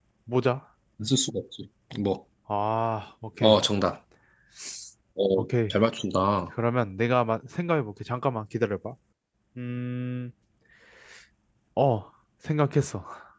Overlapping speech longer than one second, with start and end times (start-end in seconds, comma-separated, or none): none